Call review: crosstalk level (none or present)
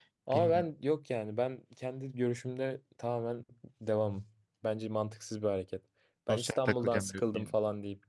present